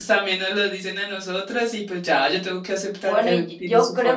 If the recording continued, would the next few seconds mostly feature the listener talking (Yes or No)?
Yes